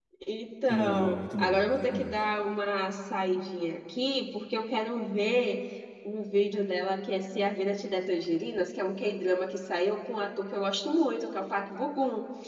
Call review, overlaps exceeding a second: present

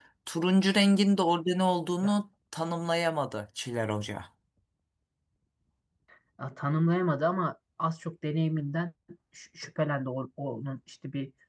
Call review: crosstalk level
none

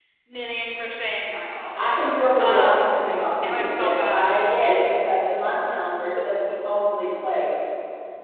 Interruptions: present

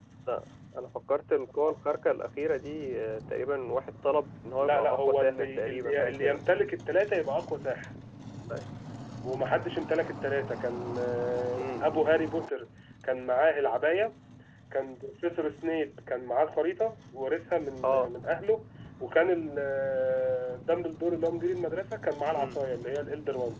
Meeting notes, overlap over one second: present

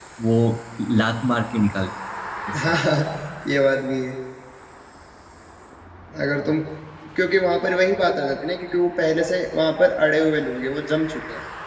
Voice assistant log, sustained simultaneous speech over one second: none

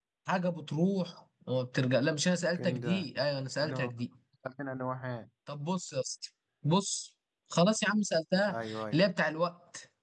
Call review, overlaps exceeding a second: none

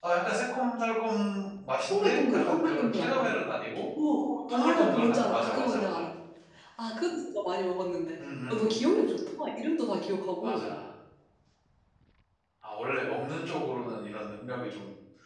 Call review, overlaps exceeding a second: present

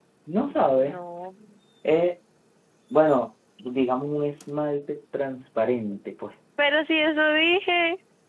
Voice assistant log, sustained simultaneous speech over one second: none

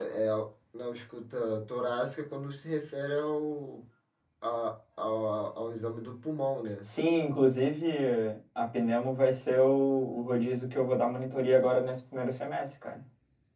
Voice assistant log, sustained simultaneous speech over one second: none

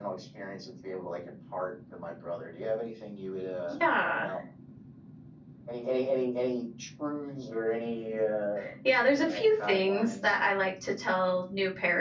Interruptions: present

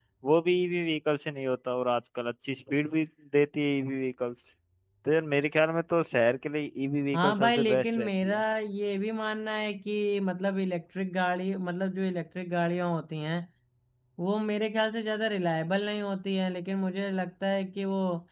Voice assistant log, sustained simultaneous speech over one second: present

